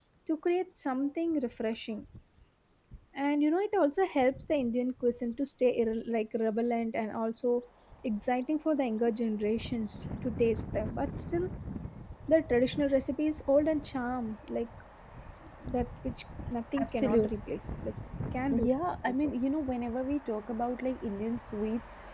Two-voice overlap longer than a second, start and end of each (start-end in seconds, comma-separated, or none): none